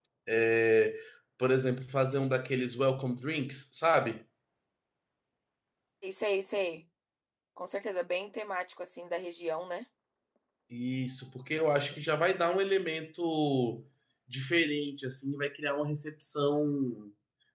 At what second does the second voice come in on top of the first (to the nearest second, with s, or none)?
none